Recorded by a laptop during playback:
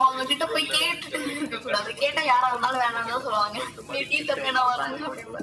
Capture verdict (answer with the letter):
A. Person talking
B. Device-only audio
B